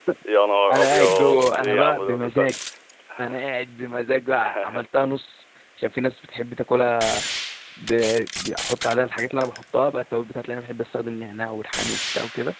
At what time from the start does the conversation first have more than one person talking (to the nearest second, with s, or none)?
1 s